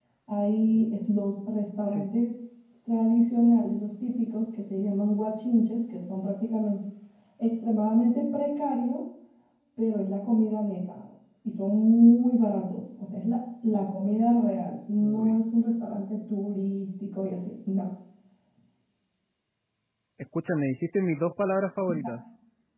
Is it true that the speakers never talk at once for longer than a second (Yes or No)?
Yes